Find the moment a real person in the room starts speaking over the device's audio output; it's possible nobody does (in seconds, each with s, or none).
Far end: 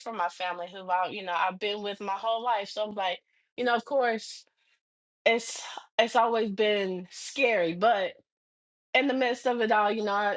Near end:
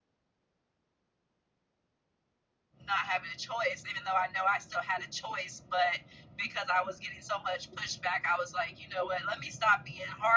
2.9 s